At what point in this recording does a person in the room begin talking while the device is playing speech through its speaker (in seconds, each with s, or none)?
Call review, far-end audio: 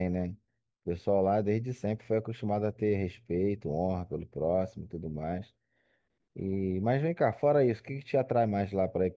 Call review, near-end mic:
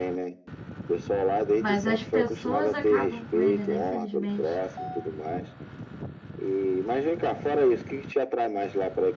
1.5 s